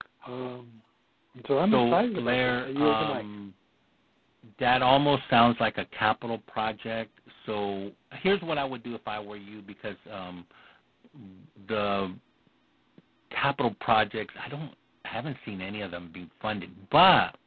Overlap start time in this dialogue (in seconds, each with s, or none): 1.6 s